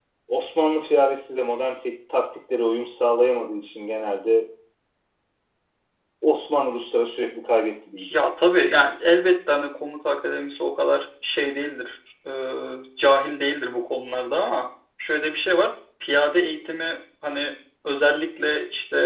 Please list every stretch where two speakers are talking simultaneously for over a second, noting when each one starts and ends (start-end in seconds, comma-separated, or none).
none